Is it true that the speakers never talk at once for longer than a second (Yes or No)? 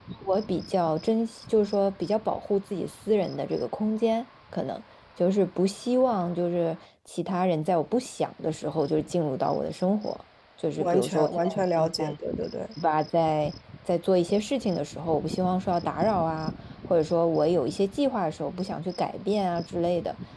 No